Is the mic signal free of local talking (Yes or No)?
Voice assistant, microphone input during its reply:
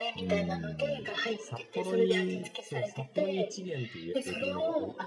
No